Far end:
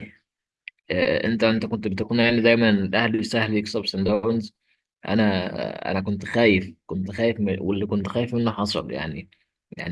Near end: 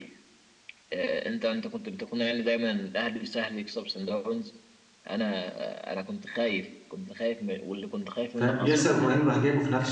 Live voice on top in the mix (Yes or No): Yes